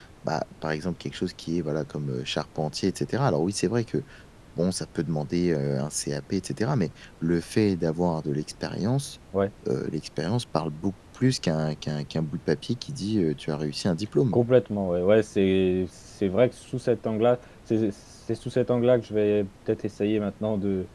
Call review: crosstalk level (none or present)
none